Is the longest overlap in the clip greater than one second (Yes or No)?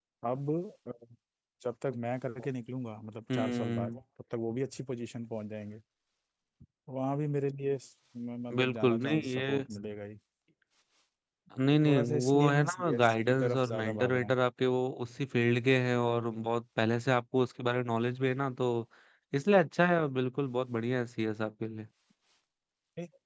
Yes